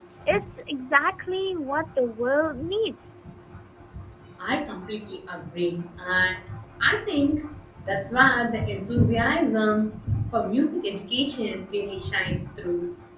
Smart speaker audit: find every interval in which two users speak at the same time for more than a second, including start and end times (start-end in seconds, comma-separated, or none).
none